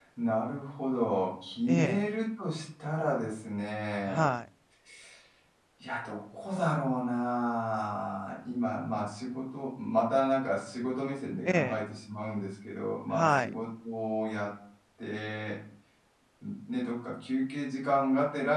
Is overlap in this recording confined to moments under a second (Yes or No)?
Yes